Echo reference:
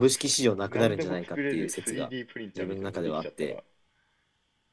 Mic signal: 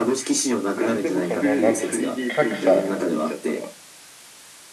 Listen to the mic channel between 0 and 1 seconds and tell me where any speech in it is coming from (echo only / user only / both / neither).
echo only